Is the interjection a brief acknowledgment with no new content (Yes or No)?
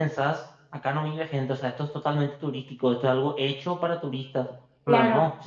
Yes